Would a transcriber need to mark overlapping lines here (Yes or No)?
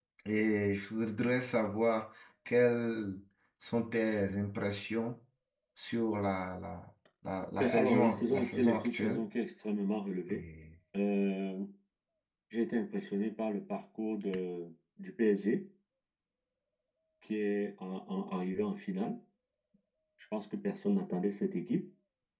Yes